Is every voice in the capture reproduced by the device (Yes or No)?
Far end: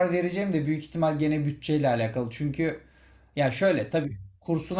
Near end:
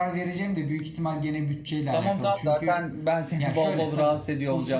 No